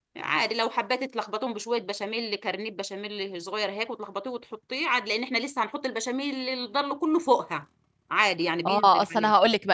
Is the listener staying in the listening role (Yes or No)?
No